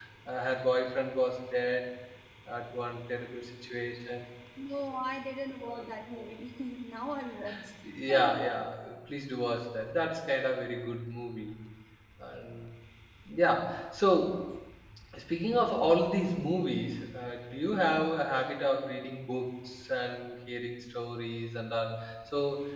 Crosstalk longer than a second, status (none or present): none